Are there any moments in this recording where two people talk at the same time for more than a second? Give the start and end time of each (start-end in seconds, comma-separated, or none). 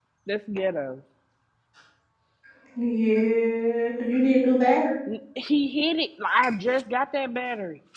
none